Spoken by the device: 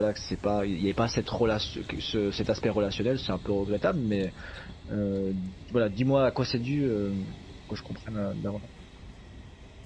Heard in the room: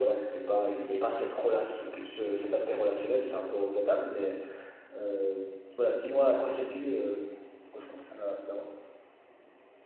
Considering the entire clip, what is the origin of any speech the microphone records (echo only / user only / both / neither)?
echo only